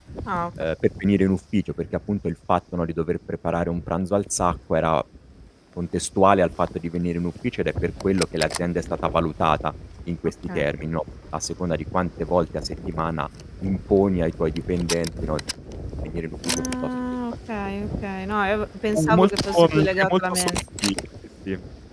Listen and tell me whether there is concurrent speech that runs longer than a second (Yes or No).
Yes